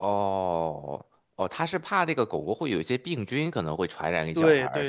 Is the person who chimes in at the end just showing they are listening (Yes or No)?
No